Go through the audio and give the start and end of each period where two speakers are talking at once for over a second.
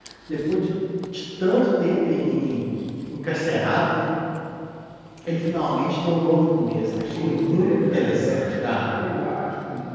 7.1-8.5

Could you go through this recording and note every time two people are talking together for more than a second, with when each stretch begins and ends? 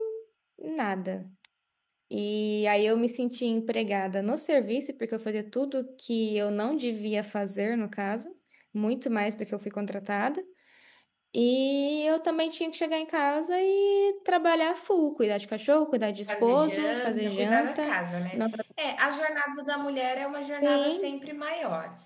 16.3-17.9

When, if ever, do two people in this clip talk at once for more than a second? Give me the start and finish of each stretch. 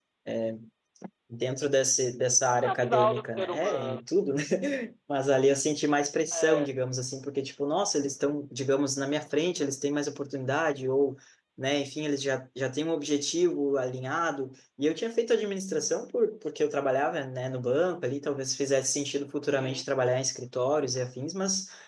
2.6-4.0

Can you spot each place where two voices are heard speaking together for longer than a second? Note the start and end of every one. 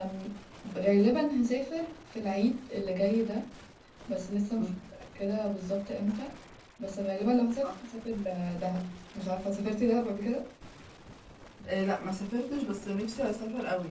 none

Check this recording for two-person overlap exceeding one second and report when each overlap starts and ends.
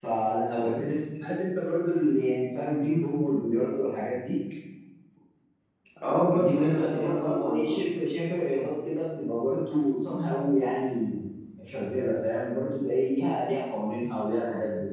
6.3-7.8

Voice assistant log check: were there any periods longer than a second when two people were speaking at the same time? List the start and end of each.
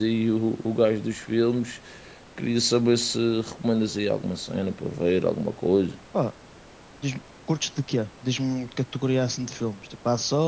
none

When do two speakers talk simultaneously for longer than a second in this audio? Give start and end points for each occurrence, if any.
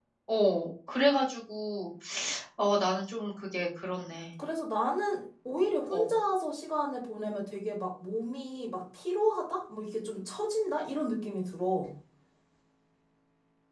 none

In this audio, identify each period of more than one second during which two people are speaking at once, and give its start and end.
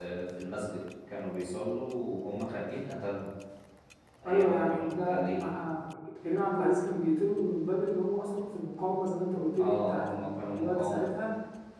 4.2-5.5, 9.6-11.2

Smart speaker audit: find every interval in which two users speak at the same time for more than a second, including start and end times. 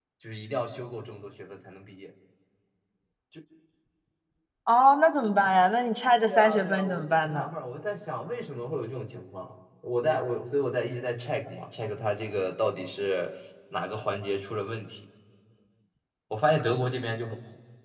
6.3-7.5

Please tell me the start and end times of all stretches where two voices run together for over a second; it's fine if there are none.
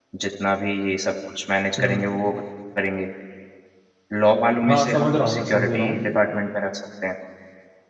4.7-6.0

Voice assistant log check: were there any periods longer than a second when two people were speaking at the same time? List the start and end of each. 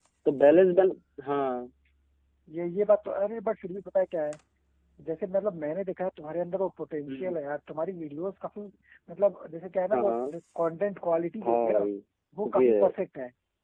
none

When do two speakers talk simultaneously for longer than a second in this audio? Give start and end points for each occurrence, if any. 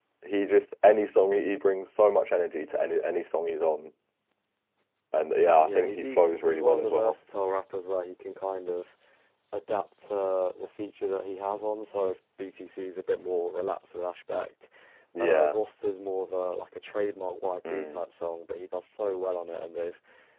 5.6-7.2

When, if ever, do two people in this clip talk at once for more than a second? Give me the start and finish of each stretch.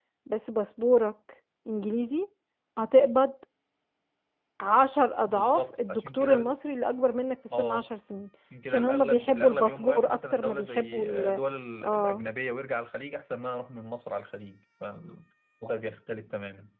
5.2-6.6, 8.7-11.4

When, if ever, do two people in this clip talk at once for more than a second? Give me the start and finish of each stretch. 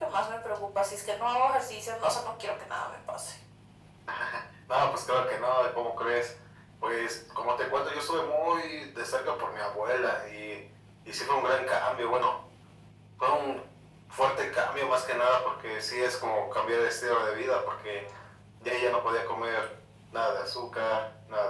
none

